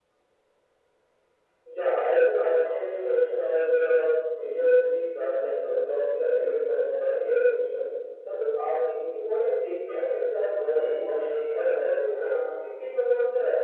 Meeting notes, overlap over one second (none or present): present